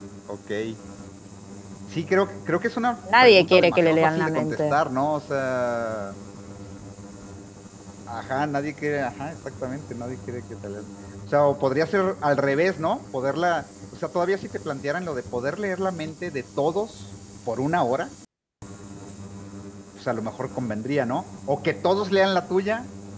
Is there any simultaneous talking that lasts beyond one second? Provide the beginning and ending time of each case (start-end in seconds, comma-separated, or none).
3.2-4.8